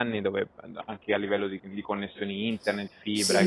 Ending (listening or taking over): listening